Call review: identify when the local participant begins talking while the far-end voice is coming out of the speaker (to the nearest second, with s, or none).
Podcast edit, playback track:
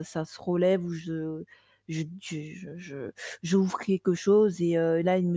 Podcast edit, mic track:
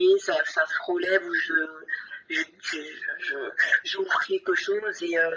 none